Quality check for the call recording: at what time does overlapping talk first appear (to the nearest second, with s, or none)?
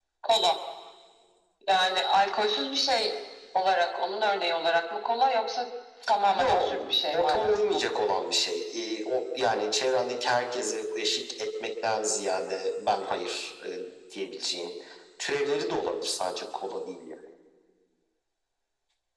6 s